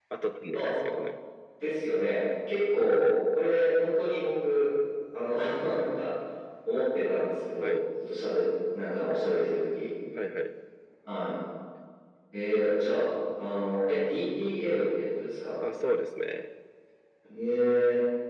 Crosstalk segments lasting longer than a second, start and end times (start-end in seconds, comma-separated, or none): none